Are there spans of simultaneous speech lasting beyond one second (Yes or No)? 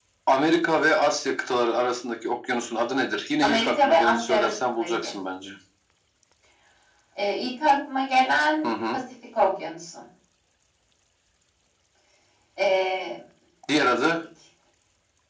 Yes